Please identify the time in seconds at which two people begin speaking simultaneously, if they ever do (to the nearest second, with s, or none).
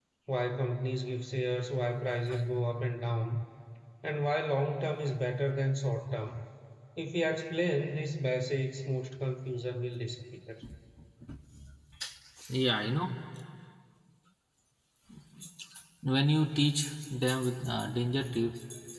none